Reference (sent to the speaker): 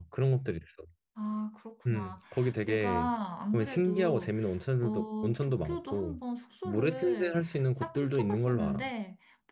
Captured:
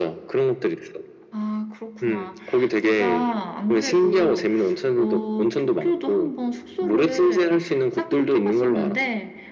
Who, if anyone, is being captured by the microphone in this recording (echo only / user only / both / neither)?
echo only